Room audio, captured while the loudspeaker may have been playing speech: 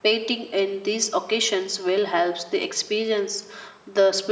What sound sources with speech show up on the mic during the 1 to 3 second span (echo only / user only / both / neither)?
user only